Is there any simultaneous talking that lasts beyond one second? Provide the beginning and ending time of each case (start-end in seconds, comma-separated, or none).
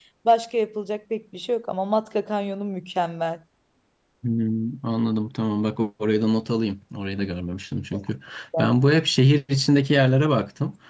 none